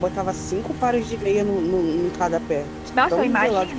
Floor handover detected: Yes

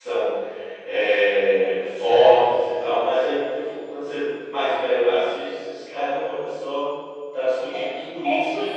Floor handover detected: Yes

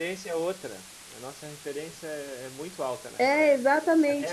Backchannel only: No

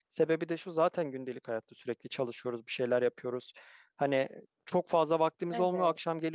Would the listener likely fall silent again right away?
Yes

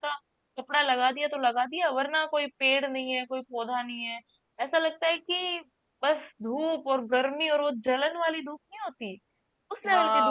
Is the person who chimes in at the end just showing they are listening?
No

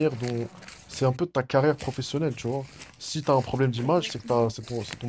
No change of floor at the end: Yes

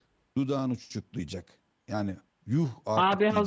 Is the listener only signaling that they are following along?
No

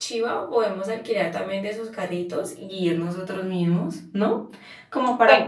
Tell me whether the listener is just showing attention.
No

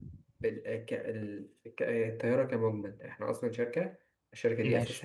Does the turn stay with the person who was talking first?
Yes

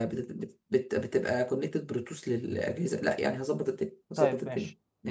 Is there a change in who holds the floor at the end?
Yes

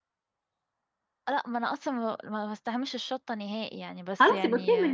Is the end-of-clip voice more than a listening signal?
Yes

